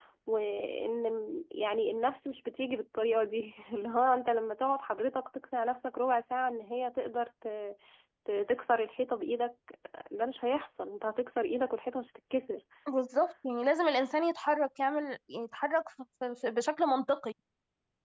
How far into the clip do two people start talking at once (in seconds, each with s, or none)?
none